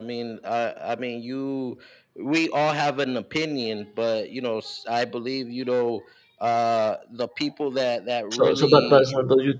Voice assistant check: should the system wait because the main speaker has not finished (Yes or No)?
No